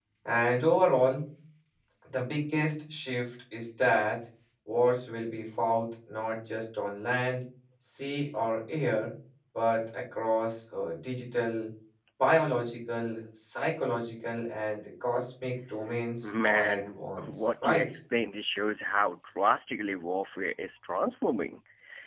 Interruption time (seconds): 16.2 s

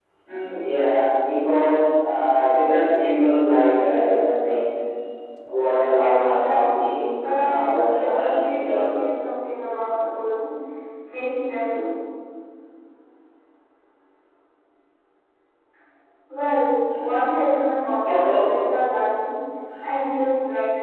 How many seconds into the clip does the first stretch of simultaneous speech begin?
6.3 s

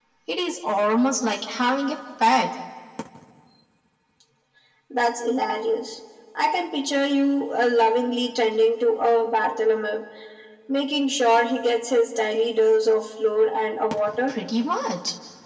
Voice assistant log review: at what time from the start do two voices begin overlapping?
none

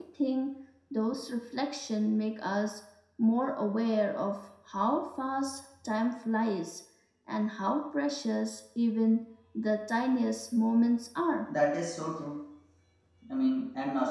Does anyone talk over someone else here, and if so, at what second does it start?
none

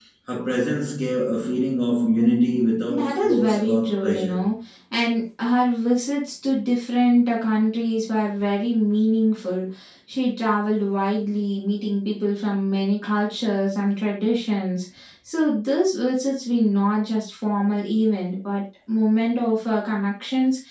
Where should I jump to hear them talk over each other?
2.9 s

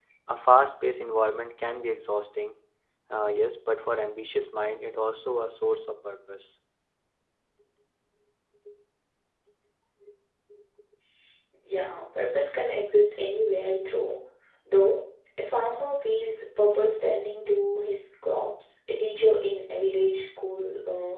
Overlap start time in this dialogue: none

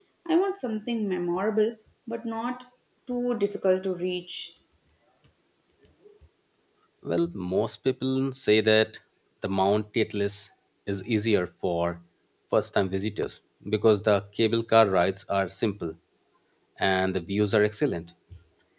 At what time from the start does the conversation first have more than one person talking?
none

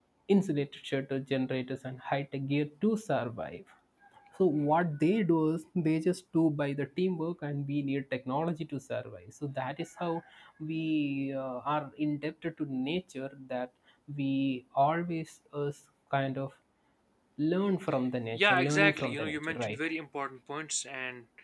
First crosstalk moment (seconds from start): 18.3 s

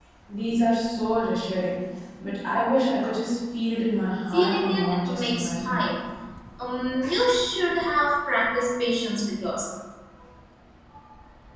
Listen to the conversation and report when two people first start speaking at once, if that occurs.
4.3 s

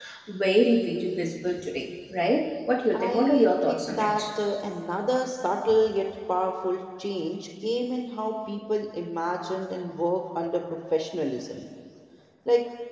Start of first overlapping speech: 2.9 s

